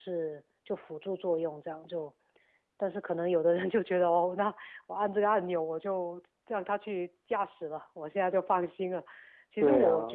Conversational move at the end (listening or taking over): listening